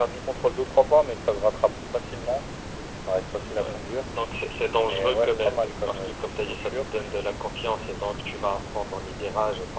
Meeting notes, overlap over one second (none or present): present